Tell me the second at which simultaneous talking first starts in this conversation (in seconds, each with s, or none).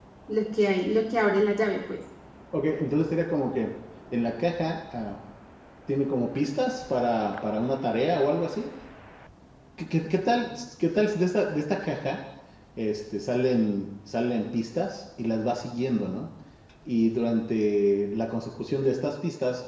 none